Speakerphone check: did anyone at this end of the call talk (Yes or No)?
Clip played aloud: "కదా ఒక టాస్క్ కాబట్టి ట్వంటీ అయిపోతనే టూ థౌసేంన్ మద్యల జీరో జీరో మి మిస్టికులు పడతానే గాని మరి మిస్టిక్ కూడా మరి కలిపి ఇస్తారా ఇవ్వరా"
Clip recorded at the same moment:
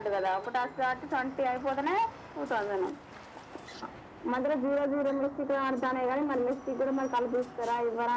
No